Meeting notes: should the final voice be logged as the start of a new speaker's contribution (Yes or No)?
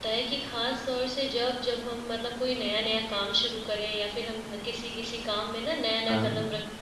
No